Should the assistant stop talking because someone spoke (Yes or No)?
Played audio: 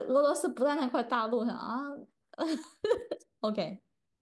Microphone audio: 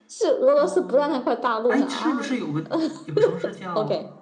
Yes